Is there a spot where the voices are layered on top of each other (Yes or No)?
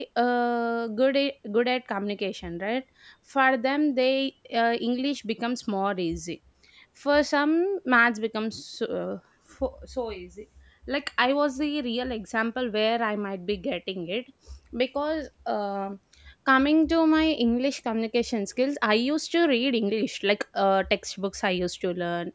No